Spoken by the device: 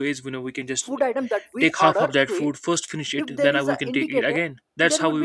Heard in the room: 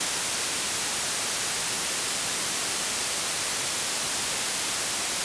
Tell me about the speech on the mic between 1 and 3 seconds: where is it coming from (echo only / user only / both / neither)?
neither